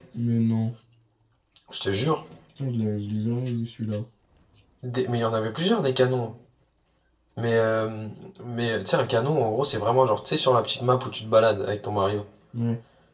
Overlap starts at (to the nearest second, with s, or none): none